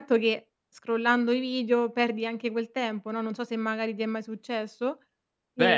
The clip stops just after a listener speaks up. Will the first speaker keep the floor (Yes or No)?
No